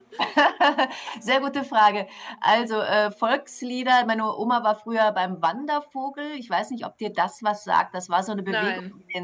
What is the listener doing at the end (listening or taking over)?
listening